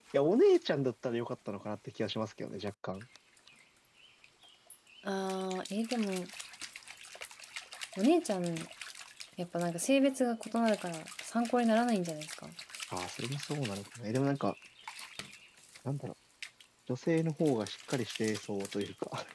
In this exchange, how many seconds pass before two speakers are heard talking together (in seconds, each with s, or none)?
none